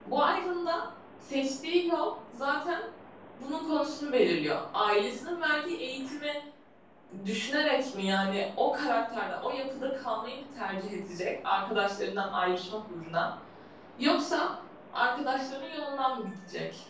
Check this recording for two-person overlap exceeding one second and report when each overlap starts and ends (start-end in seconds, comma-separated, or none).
none